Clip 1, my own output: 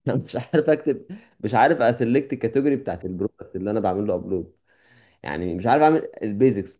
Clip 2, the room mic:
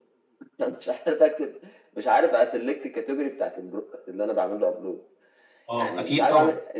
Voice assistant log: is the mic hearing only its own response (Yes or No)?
No